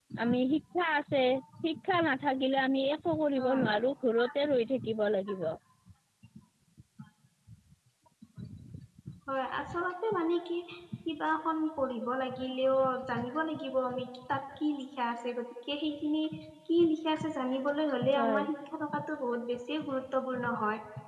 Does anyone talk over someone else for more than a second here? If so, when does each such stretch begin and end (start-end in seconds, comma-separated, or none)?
none